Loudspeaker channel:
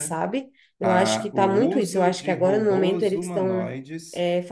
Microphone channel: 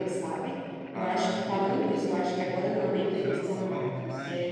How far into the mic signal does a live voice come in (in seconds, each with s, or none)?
3.2 s